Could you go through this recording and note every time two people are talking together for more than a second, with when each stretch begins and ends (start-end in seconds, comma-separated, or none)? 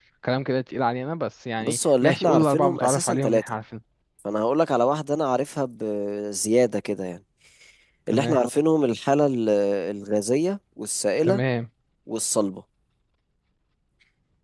1.6-3.5